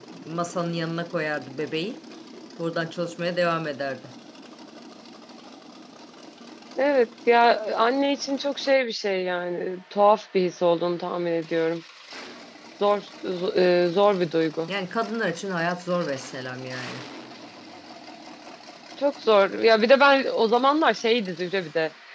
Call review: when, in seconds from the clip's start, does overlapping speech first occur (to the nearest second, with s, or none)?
none